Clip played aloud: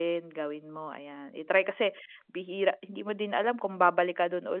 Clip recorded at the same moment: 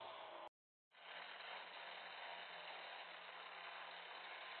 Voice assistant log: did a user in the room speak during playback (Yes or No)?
No